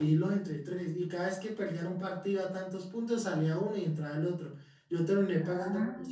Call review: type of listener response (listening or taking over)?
listening